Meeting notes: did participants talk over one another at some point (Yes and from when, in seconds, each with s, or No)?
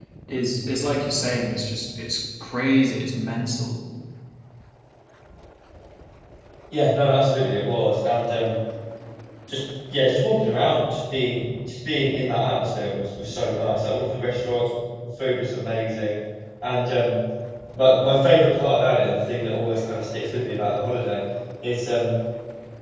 No